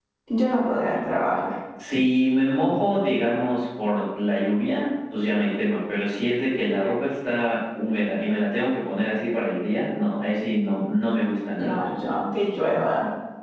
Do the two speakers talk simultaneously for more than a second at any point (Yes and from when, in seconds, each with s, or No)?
No